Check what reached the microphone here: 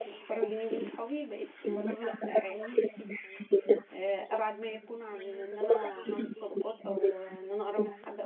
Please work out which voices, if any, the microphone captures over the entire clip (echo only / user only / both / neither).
both